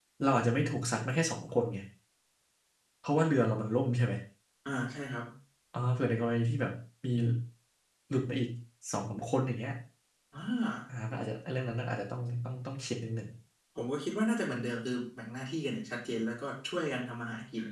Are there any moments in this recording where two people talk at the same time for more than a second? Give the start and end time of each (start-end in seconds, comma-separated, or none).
none